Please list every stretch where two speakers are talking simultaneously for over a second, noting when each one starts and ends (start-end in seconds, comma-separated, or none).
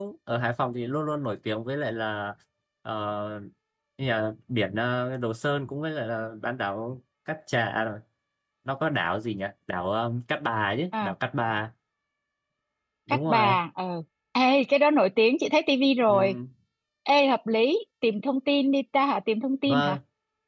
none